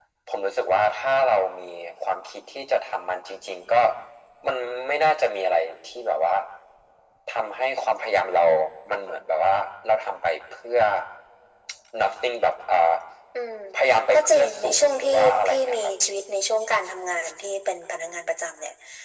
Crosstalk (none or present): present